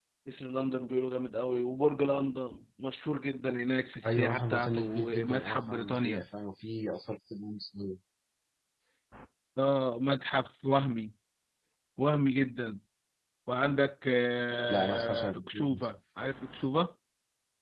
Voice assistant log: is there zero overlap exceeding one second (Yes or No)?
No